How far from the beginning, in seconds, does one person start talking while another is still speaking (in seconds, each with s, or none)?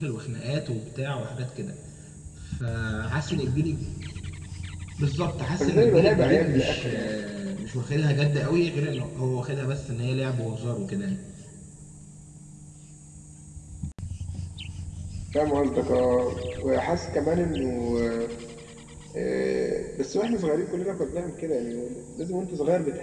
5.6 s